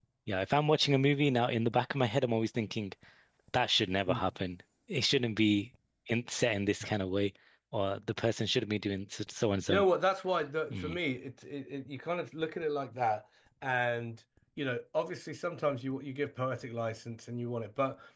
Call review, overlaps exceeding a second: none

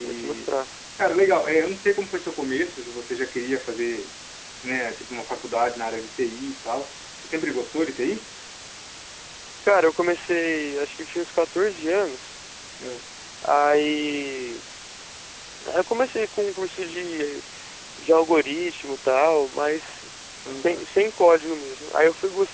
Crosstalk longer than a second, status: none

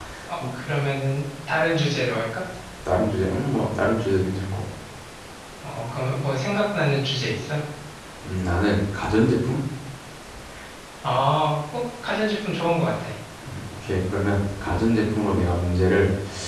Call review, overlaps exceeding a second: none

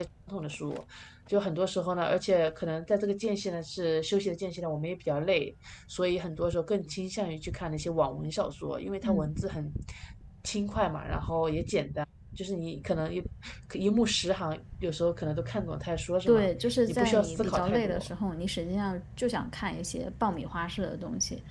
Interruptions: present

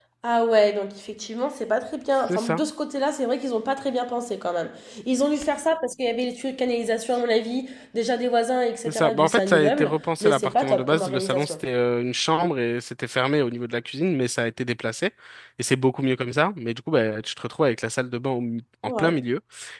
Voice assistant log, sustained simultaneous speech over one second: present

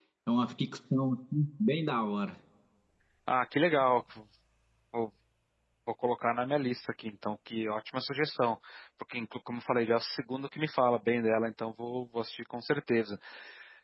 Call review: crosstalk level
none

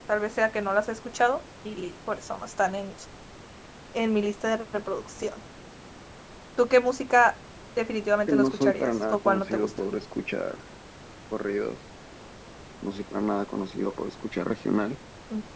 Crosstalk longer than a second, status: present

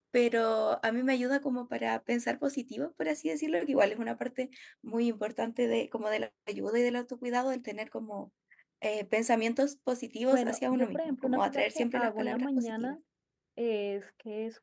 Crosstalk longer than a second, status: present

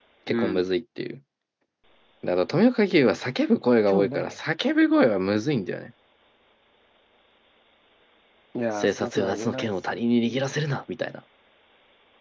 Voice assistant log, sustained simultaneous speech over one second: present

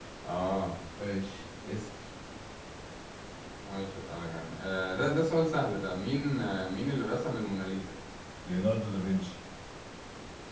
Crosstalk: none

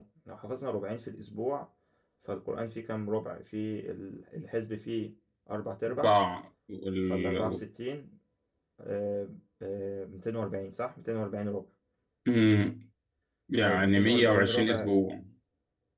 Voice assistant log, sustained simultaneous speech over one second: present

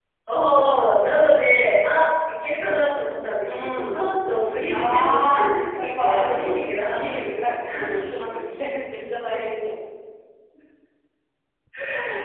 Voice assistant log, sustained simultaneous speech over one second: present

